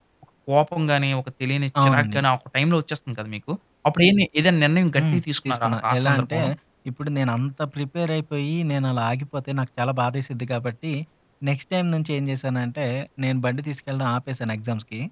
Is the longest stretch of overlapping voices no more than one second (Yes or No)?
No